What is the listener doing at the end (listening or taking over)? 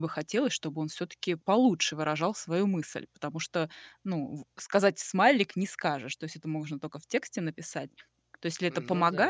listening